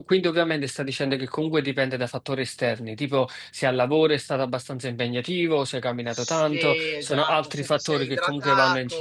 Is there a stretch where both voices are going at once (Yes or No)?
Yes